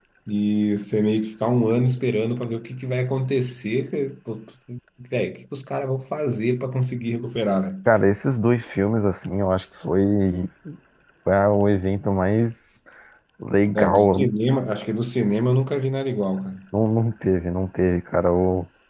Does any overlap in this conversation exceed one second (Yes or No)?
No